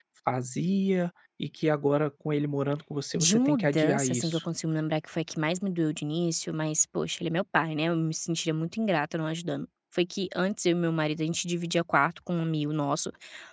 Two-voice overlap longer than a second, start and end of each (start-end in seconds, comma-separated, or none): 3.2-4.4